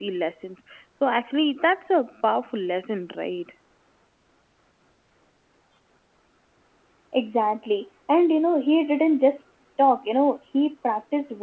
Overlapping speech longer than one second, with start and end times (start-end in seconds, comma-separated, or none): none